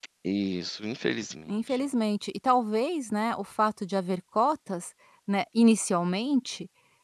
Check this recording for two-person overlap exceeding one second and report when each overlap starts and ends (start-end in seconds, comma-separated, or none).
none